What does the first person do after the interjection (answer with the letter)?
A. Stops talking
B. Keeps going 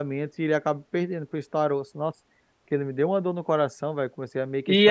A